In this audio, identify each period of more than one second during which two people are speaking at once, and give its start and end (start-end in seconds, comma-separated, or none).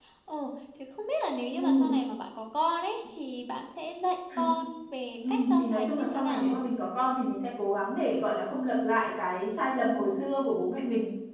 5.3-6.6